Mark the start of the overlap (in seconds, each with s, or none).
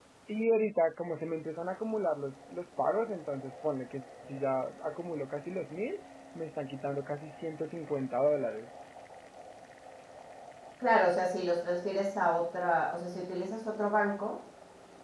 none